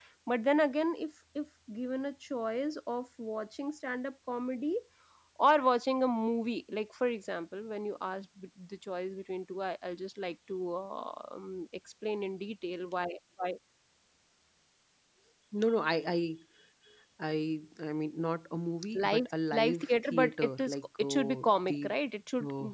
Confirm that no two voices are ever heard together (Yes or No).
No